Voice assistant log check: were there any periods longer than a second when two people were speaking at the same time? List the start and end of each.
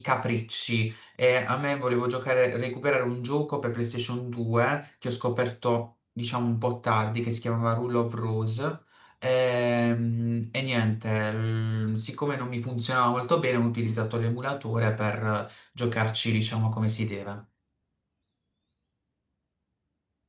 none

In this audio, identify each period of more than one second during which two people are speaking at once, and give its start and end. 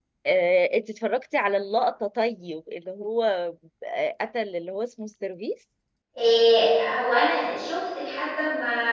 none

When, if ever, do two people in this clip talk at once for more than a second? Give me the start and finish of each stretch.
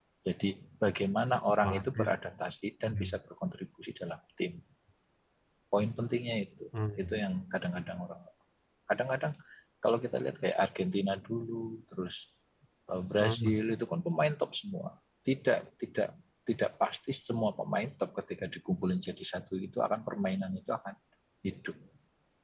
none

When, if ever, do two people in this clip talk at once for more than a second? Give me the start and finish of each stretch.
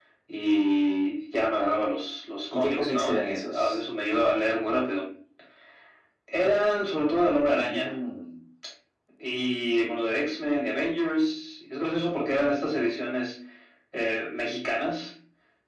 2.5-3.8

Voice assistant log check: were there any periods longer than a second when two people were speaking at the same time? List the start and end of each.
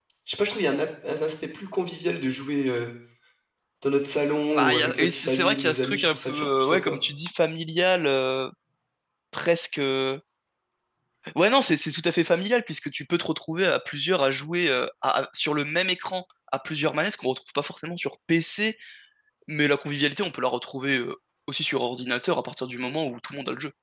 4.5-7.0

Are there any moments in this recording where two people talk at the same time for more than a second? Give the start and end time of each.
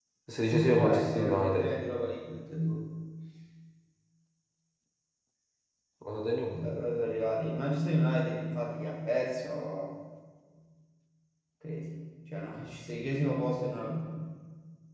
0.5-1.7

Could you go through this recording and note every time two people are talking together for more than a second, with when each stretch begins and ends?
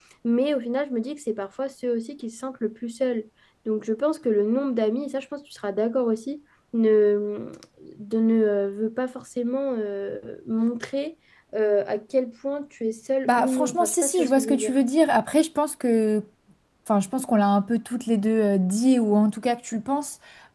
13.3-14.8

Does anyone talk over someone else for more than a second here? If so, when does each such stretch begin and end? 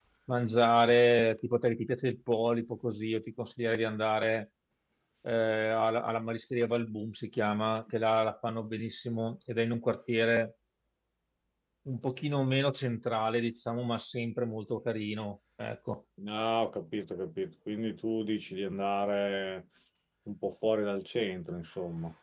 none

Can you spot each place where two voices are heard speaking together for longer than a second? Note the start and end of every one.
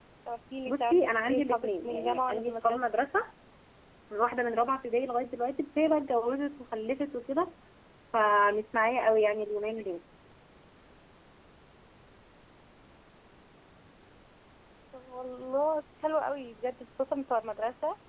0.7-2.9

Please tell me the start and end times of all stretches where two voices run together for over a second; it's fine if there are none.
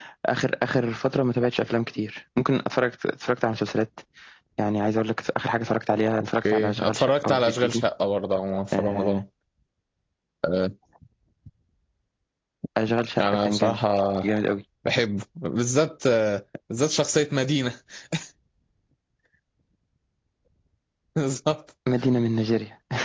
6.5-7.8

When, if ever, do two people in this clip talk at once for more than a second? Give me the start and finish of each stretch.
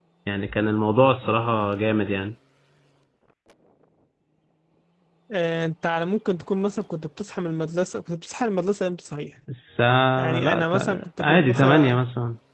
10.2-11.9

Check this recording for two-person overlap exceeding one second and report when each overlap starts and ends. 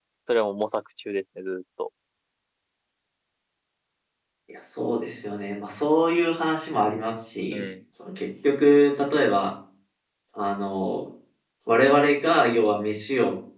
none

